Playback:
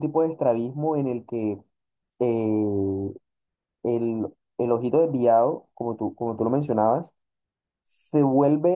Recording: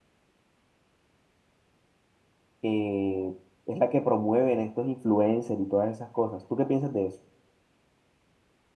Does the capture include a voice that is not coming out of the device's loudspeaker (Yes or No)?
Yes